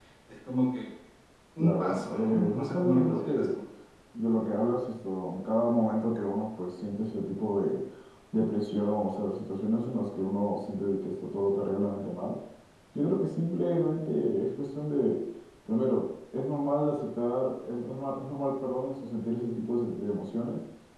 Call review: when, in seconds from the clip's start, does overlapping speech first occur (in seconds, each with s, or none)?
1.6 s